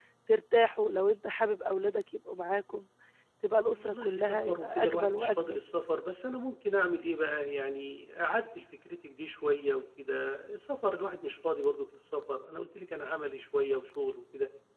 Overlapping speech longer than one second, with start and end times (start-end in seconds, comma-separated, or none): 3.8-5.6